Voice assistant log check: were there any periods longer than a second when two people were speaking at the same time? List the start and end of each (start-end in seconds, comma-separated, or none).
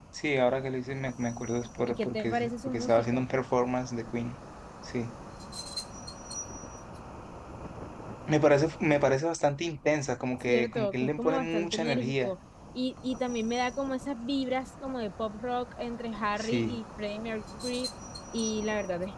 1.9-3.3, 10.5-12.3